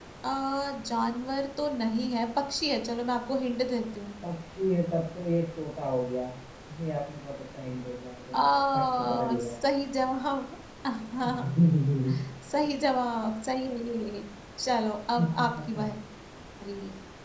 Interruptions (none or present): present